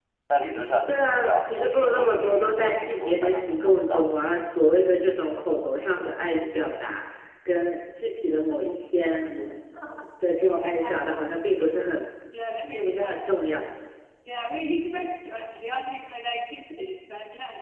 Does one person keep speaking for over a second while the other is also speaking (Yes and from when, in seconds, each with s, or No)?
Yes, from 0.9 s